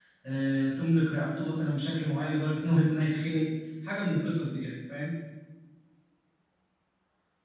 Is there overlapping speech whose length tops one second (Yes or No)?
No